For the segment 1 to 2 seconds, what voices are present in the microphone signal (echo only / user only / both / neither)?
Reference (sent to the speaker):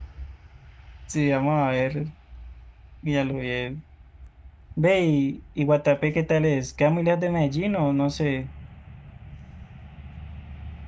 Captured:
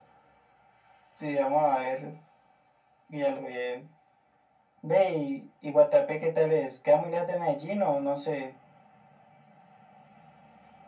echo only